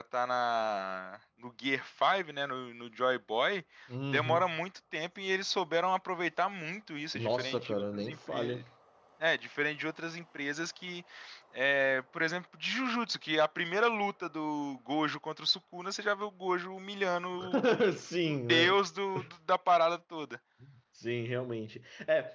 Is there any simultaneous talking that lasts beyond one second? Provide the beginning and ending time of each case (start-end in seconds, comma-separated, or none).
7.1-8.6